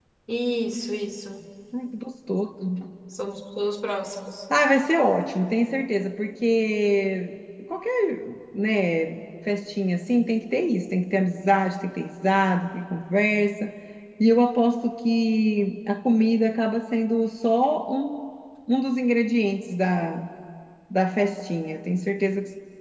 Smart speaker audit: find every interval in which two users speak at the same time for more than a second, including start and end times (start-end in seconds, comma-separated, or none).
none